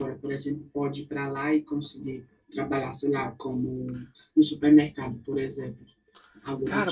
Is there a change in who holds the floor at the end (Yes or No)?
Yes